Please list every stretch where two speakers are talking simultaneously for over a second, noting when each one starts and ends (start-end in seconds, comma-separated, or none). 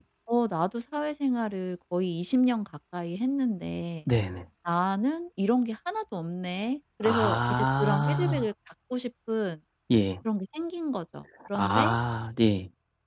7.0-8.4